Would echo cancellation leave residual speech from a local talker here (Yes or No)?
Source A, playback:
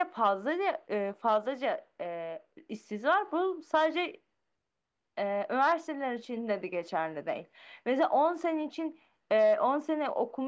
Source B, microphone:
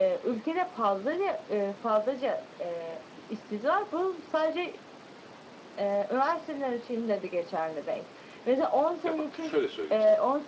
Yes